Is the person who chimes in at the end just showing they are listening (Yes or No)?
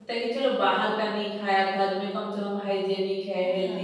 No